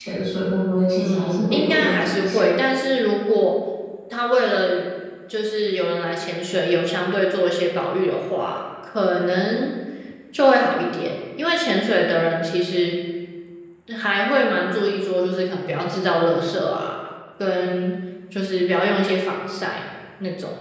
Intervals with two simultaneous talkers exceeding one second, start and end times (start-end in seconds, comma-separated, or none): 0.9-2.5